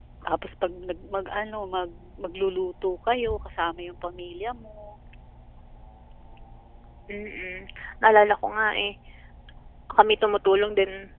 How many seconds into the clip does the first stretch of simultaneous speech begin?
none

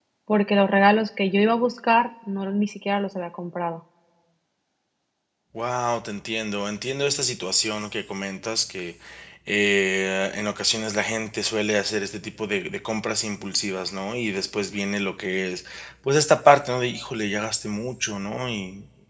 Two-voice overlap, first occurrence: none

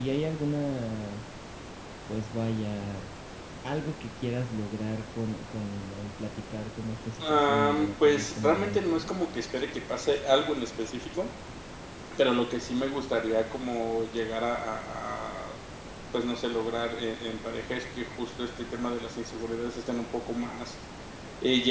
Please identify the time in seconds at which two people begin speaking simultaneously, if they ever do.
7.1 s

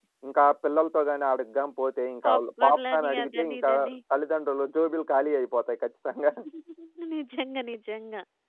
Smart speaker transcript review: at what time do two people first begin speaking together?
2.2 s

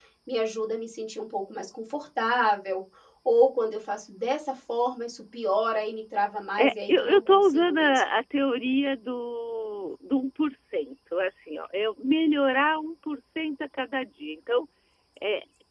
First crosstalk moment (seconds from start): 6.6 s

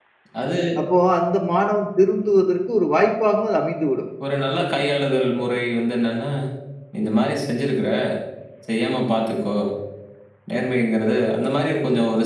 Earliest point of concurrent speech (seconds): none

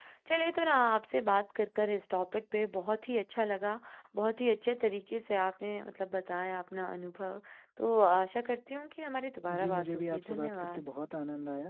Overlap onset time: 9.5 s

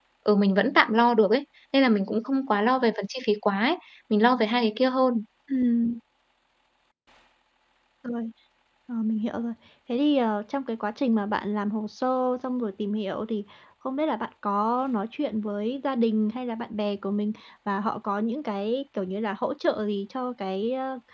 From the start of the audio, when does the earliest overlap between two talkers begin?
none

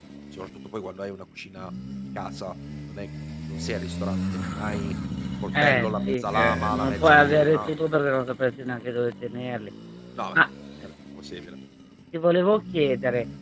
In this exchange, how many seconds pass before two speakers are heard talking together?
5.6 s

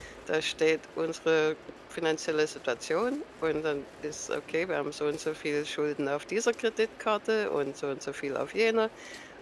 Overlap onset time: none

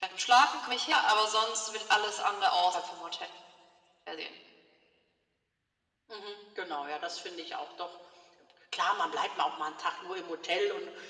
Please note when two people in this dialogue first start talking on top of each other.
none

